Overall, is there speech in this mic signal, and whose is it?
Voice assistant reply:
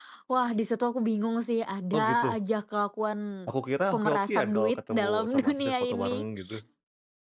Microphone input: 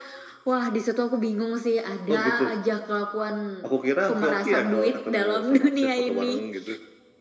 echo only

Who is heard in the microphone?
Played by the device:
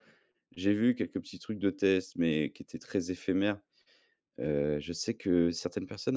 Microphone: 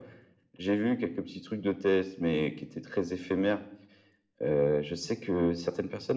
echo only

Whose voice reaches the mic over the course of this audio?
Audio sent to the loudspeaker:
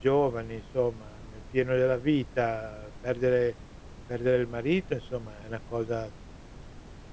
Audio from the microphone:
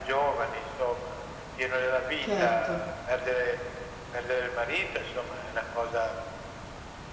both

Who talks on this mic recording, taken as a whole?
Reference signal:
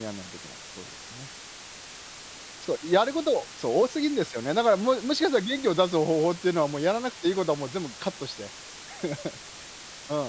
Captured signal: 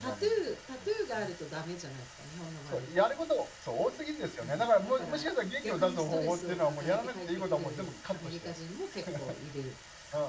both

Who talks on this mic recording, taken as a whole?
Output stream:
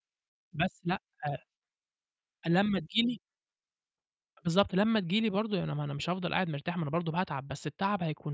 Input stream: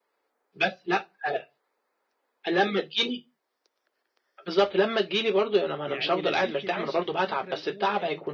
both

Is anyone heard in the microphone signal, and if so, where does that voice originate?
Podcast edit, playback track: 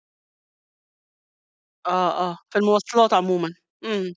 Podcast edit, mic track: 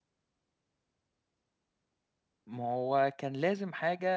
user only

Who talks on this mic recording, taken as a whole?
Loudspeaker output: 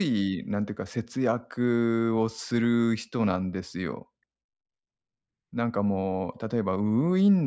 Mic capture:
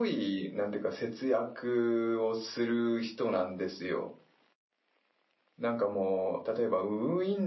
echo only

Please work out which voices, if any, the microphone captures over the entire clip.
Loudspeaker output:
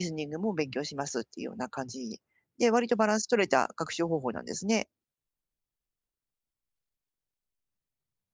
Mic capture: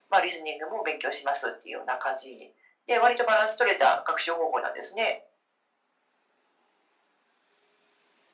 echo only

